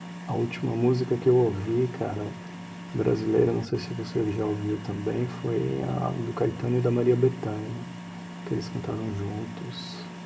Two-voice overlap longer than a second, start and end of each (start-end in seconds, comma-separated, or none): none